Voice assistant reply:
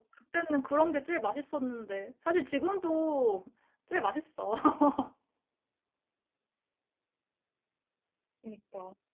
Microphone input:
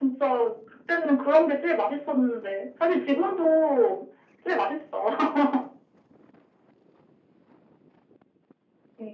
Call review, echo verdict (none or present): present